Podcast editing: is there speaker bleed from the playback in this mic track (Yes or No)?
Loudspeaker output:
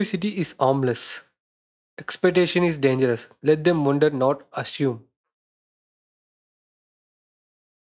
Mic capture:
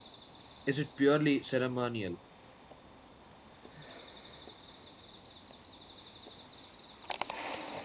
No